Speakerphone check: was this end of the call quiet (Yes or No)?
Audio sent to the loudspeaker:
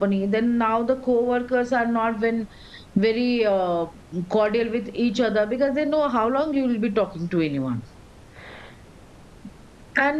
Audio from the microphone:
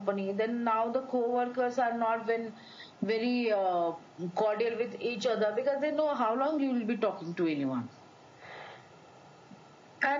Yes